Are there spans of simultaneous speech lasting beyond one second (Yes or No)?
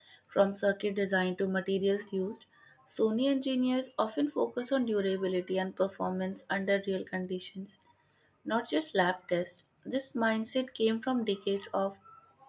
No